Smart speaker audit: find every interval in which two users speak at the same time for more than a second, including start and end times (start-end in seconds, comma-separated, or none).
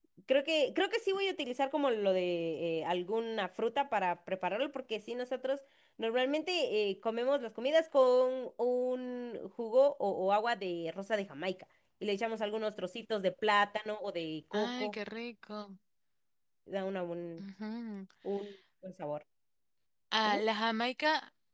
none